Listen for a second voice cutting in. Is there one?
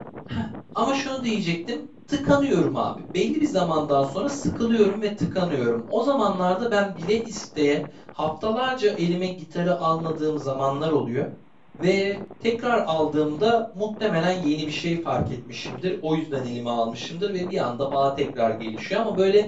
No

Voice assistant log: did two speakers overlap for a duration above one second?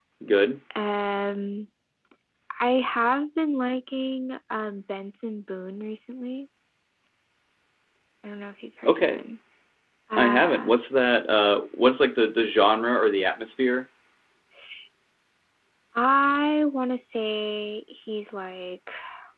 No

